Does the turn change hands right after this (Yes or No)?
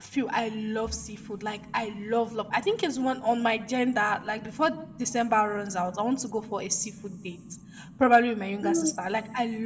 No